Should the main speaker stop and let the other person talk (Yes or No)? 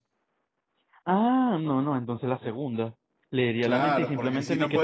Yes